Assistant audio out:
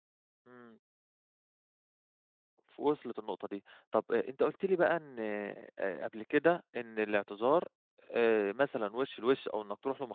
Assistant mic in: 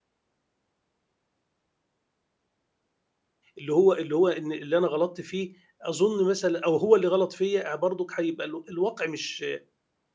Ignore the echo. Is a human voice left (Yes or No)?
Yes